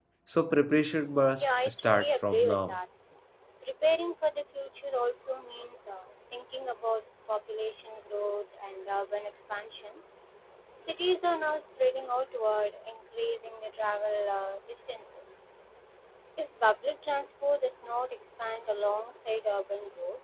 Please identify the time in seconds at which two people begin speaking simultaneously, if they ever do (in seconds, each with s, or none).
1.3 s